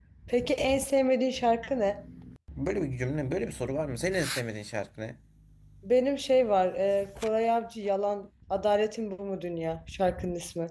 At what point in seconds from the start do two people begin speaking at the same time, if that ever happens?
none

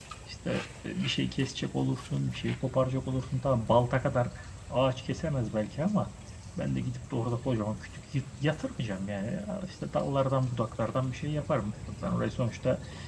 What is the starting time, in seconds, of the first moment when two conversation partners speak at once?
none

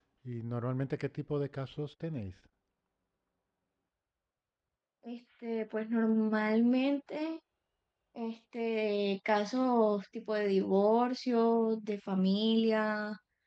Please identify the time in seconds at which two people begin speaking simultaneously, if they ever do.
none

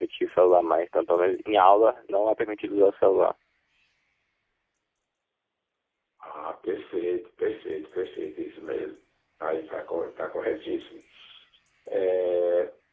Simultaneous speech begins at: none

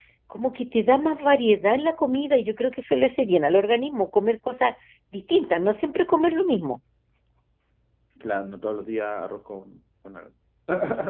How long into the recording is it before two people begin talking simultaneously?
none

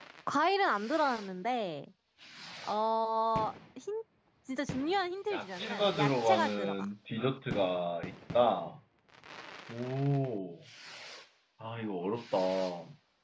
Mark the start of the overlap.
5.3 s

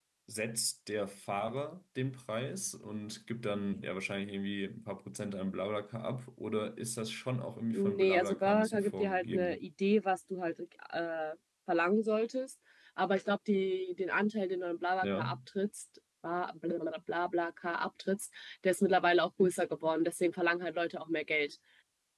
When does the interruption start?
7.7 s

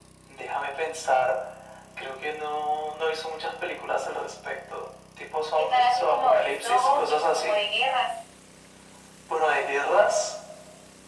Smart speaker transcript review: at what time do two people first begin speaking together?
5.6 s

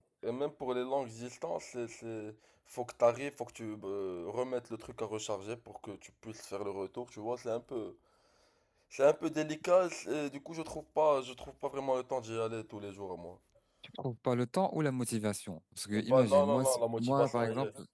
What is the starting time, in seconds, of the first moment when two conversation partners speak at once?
15.9 s

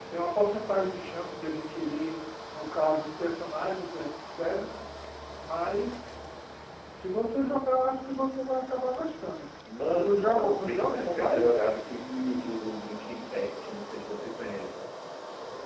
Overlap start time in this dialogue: 10.0 s

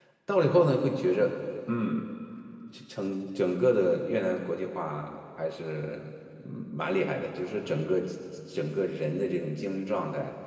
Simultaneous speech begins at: none

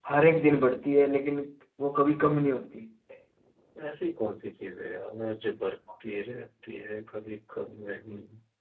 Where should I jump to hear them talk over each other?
none

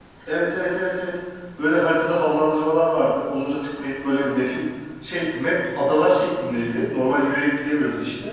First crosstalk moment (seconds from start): none

